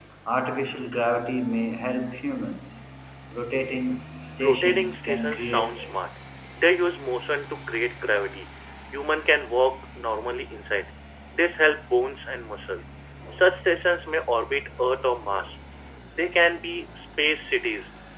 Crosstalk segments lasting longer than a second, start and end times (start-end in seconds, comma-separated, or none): 4.4-5.9